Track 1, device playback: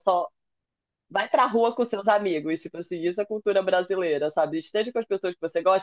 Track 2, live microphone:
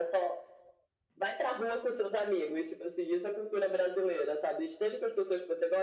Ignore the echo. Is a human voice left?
No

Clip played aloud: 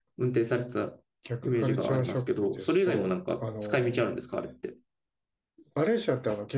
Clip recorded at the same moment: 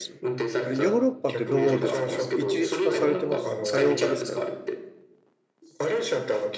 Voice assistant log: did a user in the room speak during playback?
Yes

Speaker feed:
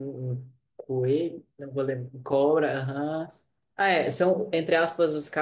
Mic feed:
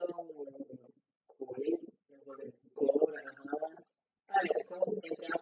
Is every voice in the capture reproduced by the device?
Yes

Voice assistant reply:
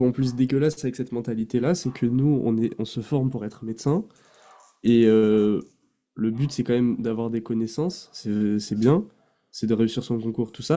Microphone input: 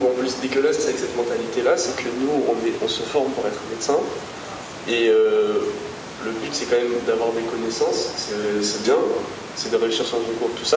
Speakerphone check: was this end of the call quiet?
Yes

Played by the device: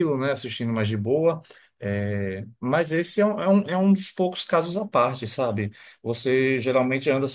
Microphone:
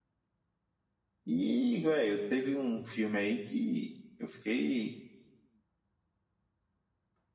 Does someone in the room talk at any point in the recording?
Yes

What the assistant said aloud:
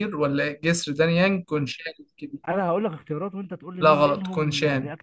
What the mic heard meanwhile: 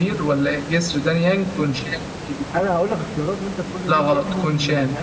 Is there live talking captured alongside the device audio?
No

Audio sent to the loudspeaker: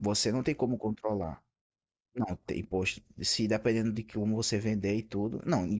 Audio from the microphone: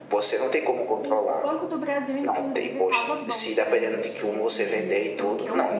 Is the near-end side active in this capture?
Yes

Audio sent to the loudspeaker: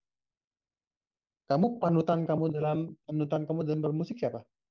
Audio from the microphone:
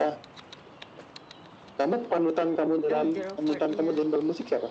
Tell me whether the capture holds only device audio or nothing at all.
No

